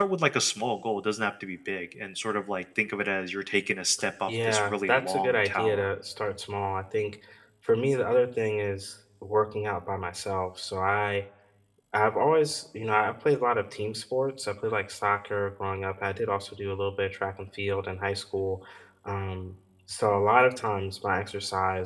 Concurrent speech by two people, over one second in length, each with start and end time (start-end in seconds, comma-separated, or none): 4.3-5.9